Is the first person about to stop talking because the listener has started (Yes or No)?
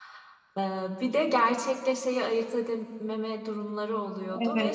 Yes